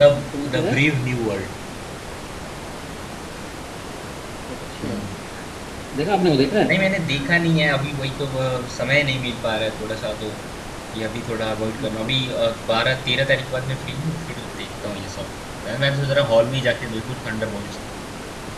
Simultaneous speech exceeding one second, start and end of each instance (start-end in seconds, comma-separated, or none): none